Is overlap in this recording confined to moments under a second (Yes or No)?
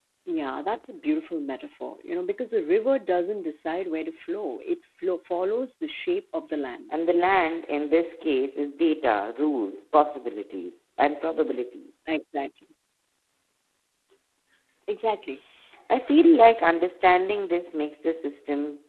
Yes